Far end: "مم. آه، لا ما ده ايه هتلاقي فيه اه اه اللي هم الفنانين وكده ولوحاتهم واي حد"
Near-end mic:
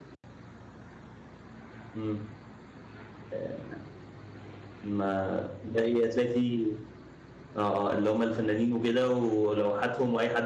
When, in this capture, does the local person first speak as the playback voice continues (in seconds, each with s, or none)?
none